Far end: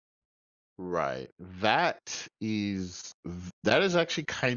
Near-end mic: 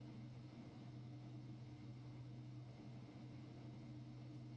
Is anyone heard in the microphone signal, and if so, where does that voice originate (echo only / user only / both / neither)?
neither